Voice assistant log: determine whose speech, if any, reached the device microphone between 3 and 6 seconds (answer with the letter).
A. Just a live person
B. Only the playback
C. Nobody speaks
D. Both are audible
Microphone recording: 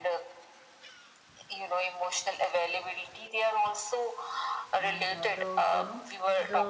D